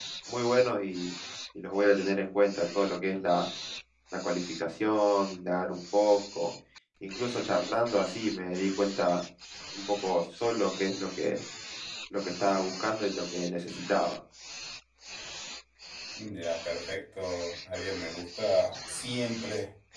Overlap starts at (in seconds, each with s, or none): none